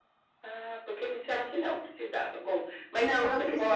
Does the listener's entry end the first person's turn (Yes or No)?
Yes